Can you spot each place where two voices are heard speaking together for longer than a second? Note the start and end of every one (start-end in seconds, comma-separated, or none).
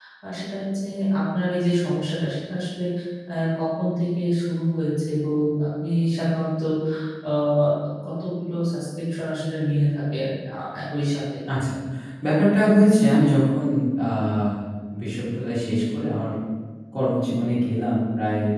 none